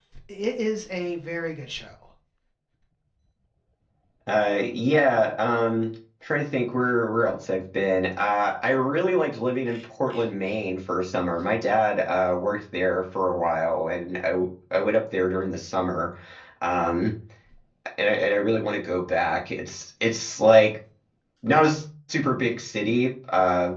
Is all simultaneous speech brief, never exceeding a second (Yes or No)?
Yes